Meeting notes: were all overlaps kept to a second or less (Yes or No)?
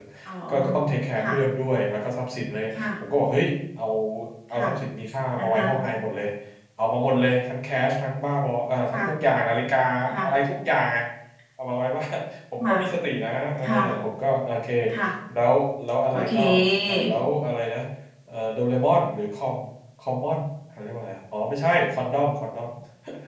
Yes